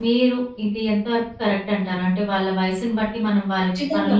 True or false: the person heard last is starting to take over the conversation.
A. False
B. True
B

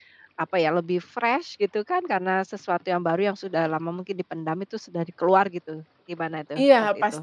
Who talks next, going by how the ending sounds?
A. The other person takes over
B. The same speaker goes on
A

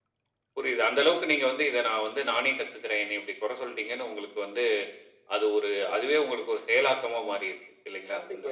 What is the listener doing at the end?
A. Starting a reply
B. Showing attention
A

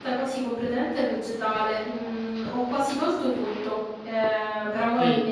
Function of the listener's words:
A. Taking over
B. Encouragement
A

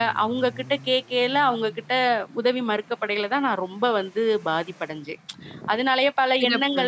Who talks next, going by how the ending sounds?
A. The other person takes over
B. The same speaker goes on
B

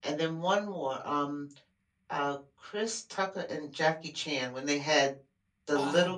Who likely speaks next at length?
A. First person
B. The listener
A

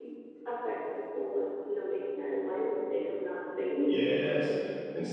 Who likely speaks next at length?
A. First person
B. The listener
B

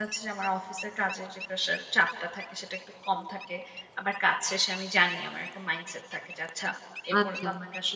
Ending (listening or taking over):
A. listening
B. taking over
B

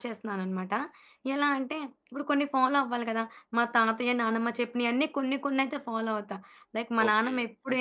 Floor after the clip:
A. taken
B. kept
A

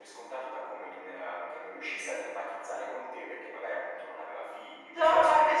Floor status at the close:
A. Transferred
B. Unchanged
A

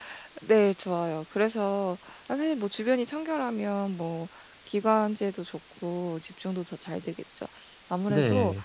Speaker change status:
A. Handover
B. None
B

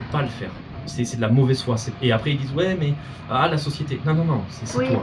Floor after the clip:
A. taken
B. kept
A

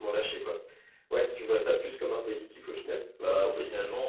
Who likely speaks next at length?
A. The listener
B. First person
A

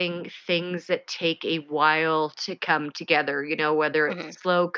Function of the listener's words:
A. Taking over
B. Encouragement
B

